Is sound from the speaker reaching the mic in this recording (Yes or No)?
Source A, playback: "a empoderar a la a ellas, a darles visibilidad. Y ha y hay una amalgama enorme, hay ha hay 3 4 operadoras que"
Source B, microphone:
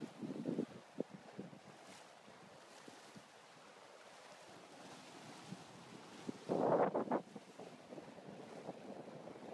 No